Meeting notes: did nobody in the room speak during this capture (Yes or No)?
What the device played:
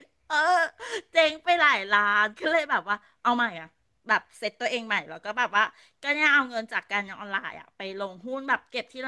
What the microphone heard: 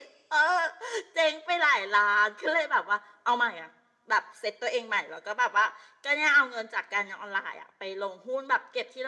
Yes